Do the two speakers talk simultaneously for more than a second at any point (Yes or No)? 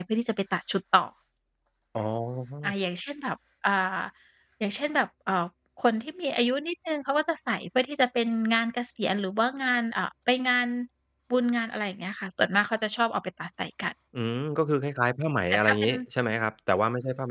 No